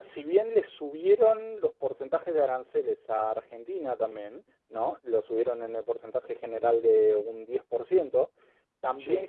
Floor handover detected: No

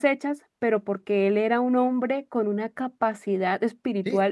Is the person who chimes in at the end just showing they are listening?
No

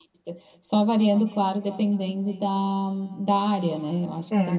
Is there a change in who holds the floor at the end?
Yes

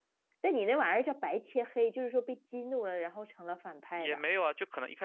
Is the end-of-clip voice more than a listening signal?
Yes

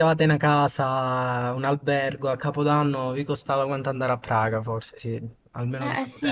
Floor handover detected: Yes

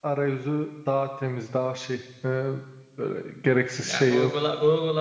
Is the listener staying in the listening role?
No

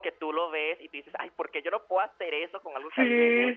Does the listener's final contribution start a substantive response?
Yes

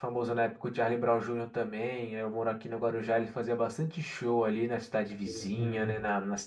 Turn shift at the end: No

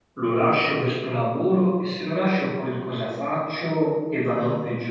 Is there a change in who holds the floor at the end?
No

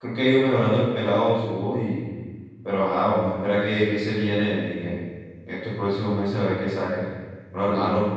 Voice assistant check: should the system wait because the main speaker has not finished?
Yes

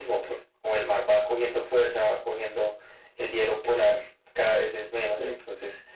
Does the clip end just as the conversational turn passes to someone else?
No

